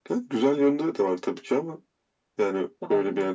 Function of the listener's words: listening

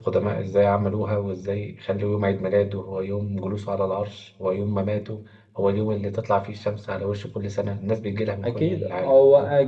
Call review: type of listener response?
taking over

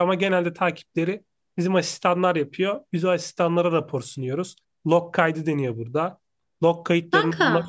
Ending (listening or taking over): listening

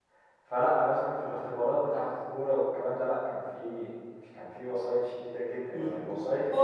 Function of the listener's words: taking over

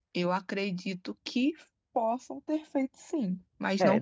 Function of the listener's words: taking over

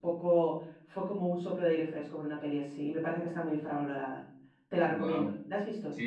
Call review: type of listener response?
taking over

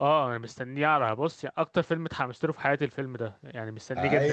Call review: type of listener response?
taking over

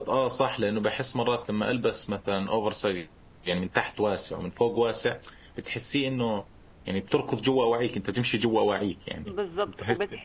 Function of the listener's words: taking over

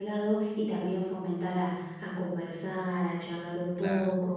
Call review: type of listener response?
listening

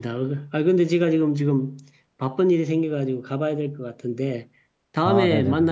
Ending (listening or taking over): listening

